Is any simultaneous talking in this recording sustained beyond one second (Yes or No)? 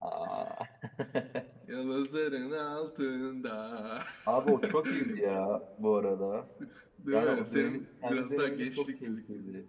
Yes